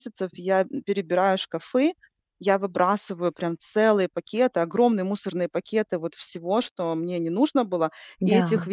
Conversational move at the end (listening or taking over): listening